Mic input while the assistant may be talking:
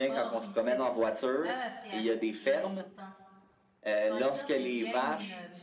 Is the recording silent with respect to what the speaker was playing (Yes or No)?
No